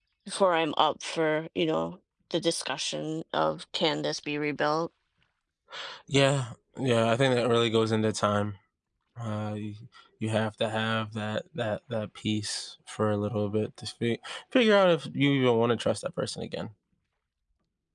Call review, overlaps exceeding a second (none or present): none